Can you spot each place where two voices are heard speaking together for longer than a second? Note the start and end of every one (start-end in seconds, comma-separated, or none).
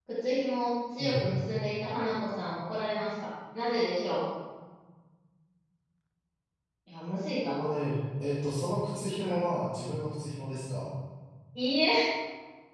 none